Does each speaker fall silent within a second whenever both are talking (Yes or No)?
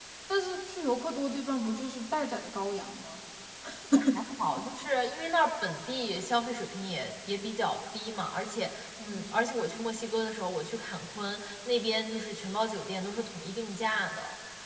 Yes